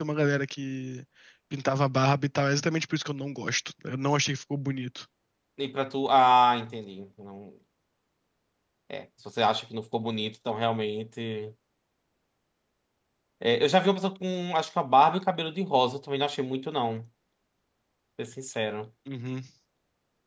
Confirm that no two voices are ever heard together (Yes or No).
Yes